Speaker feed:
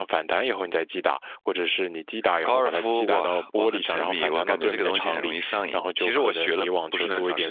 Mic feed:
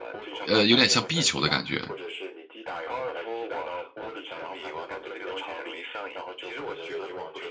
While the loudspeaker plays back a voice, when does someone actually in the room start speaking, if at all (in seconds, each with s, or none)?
0.5 s